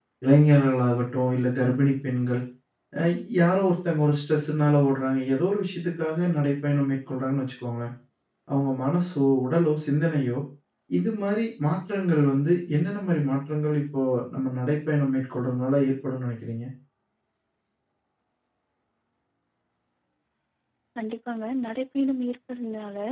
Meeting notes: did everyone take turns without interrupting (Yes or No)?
Yes